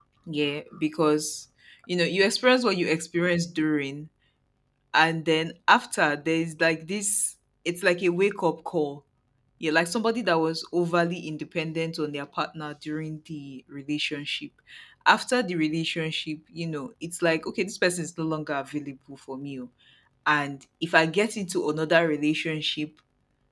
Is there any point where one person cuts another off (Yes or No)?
No